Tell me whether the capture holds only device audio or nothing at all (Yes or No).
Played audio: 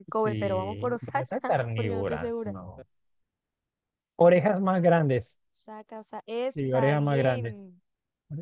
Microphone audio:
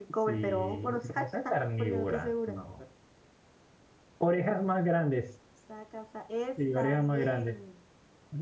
Yes